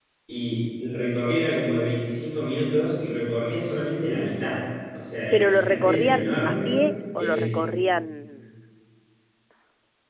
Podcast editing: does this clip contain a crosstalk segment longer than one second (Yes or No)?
Yes